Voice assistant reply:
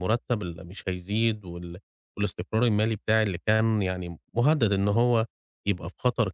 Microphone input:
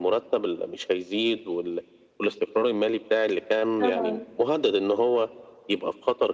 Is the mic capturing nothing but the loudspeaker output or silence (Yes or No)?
No